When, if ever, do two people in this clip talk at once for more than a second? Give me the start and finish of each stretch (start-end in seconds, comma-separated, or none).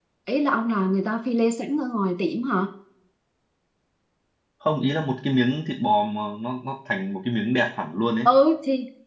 none